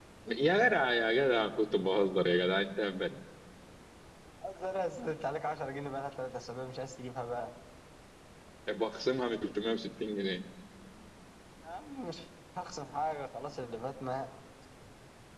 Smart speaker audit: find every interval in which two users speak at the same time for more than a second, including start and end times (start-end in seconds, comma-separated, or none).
none